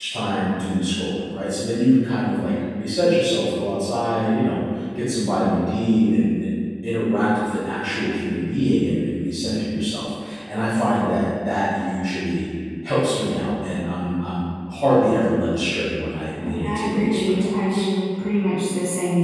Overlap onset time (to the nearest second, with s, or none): 16 s